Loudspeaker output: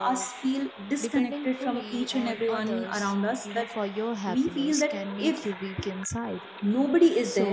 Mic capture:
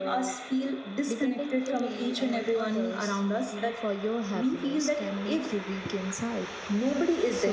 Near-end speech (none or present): none